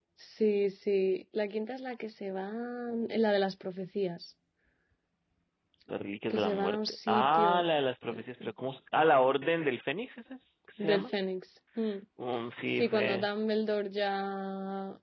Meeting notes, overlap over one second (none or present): present